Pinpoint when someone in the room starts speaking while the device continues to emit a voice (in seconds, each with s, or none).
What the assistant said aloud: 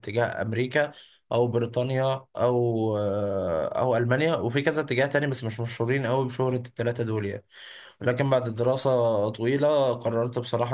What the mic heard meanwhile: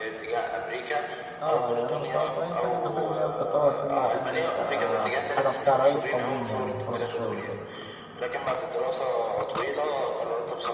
1.4 s